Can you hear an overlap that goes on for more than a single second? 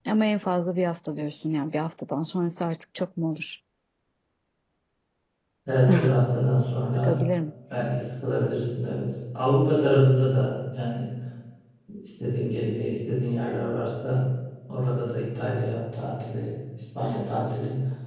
No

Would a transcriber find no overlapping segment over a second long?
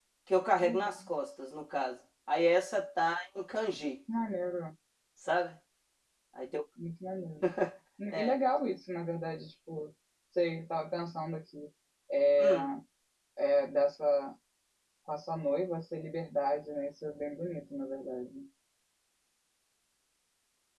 Yes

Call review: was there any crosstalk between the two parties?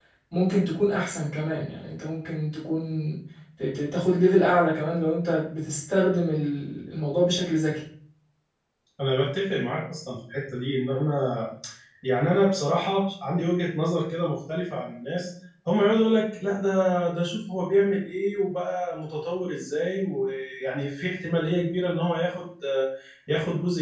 No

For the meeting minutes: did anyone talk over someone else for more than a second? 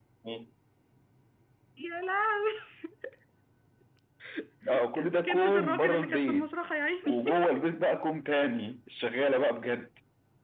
Yes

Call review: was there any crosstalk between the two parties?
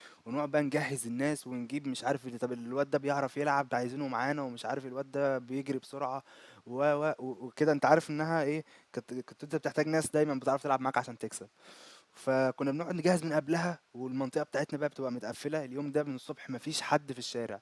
No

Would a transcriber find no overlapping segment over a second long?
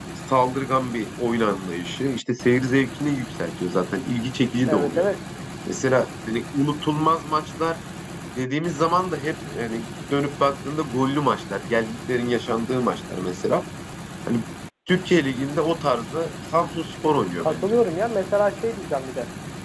Yes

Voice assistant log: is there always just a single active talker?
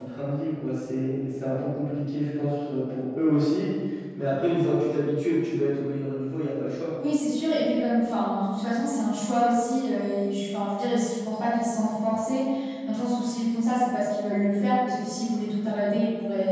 Yes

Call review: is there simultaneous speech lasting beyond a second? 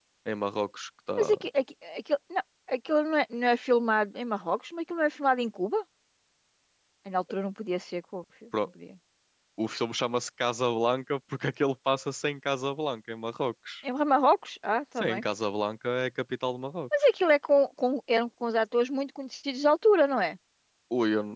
No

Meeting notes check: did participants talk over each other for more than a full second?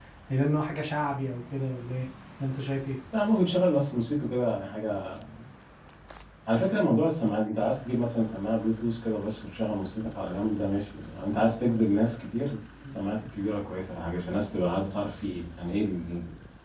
No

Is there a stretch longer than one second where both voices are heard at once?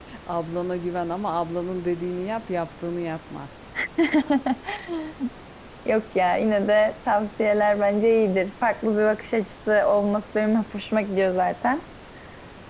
No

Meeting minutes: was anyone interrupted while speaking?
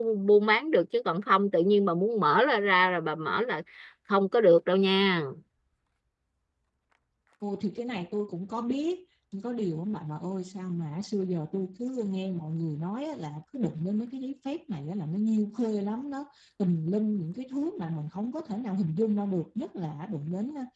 No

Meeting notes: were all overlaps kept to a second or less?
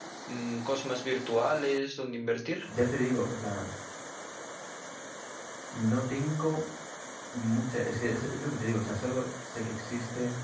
Yes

